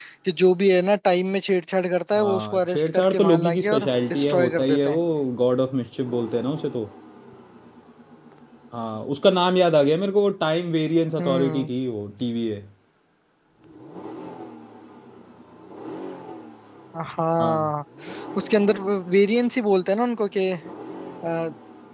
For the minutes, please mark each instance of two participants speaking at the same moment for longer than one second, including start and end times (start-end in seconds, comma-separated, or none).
2.2-5.0